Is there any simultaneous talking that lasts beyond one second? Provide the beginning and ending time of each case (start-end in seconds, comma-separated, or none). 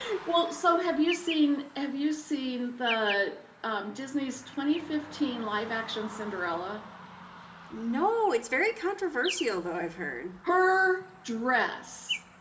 none